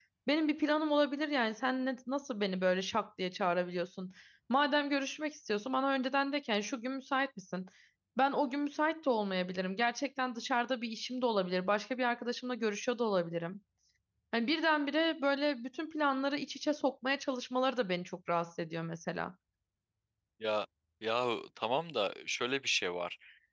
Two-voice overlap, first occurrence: none

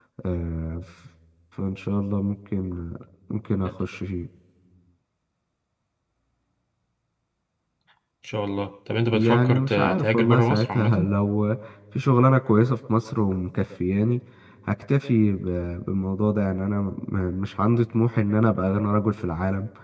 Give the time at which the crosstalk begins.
9.1 s

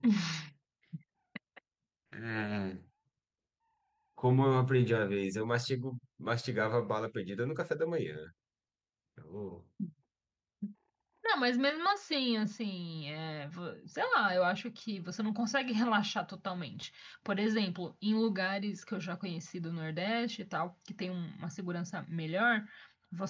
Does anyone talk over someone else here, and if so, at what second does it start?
none

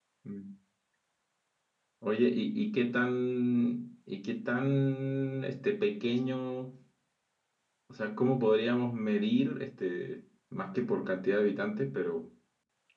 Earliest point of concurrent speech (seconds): none

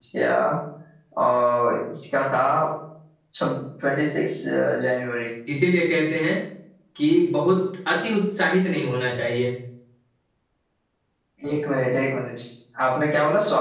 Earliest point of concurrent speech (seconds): none

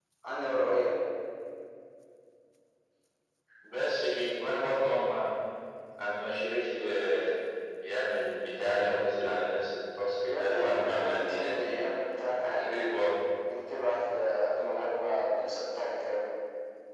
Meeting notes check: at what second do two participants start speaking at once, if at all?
10.3 s

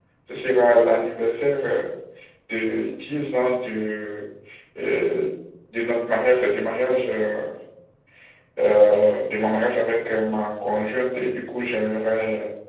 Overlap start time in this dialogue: none

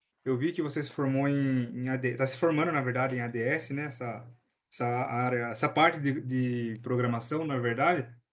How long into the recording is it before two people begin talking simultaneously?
none

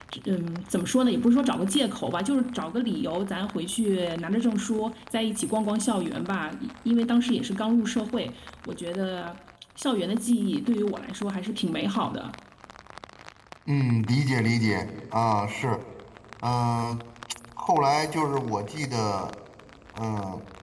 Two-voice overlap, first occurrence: none

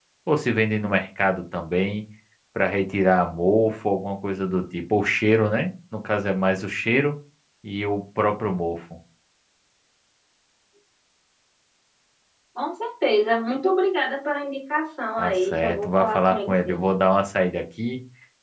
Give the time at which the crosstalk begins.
15.2 s

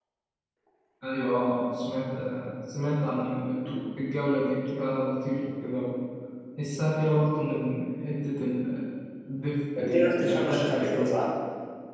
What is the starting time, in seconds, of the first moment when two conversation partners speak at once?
9.8 s

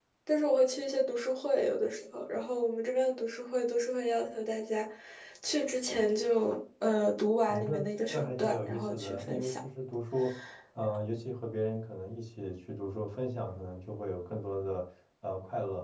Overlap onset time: 7.5 s

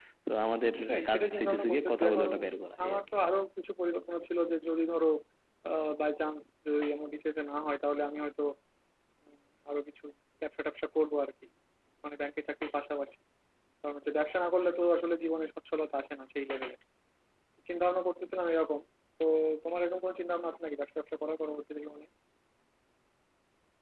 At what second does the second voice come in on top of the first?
0.8 s

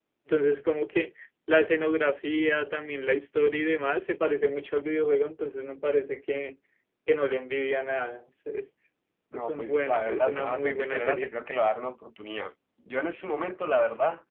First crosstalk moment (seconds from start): 9.3 s

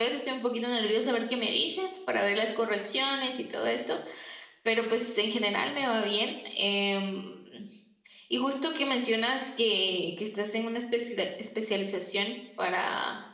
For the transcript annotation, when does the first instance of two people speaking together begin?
none

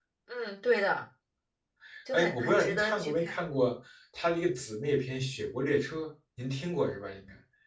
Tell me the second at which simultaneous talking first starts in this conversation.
2.1 s

